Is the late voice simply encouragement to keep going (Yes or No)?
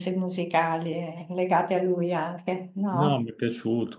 No